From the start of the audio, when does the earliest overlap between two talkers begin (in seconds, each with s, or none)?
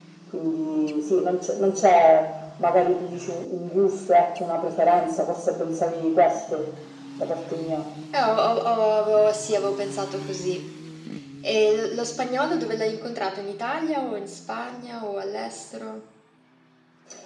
none